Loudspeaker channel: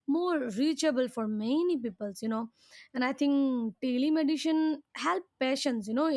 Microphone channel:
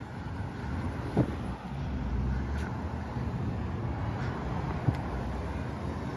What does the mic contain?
neither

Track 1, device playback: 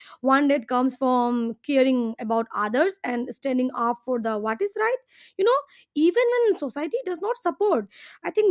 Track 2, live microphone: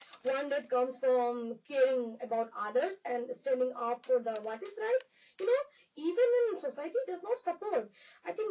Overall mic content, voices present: echo only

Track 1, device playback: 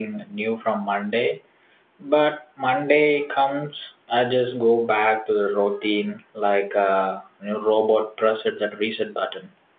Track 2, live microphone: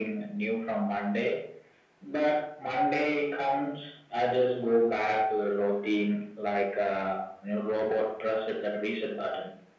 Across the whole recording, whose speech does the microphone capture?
echo only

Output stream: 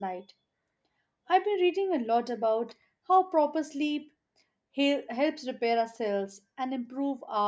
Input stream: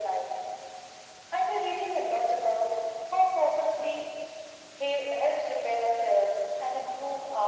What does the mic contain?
echo only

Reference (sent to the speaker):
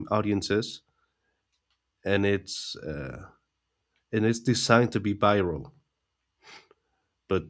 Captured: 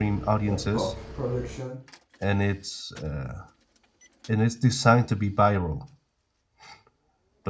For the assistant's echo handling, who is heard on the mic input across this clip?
both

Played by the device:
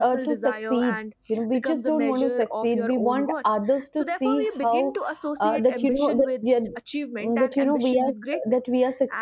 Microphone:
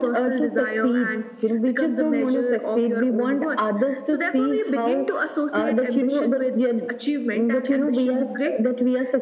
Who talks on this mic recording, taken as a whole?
echo only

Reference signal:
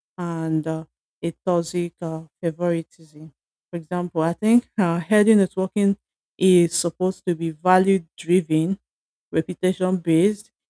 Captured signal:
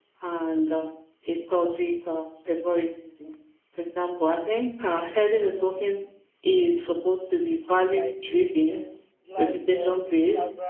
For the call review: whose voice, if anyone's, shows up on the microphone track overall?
both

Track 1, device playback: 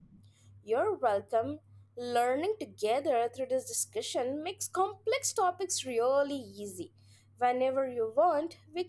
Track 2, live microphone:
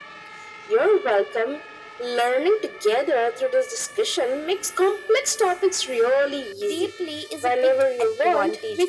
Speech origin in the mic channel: both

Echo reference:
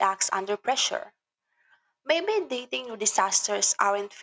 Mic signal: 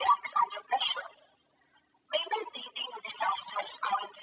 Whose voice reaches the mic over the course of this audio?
echo only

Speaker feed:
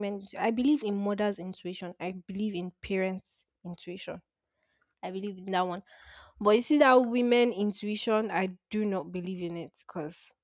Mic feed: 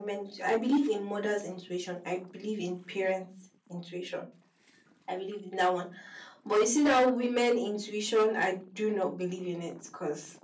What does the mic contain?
echo only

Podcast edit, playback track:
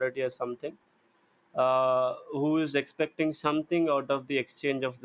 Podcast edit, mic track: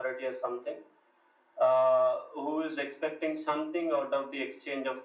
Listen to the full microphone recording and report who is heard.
echo only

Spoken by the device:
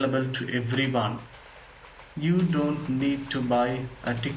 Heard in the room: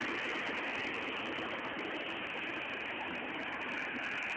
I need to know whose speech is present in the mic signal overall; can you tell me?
neither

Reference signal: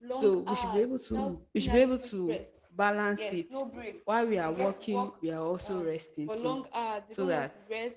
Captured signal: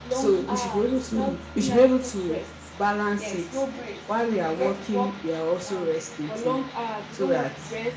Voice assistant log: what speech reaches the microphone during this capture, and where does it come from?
echo only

